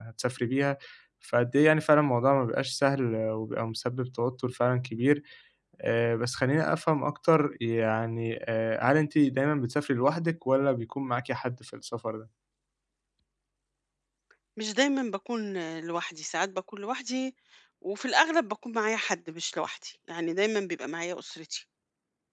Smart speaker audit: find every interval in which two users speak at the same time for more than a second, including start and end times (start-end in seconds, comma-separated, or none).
none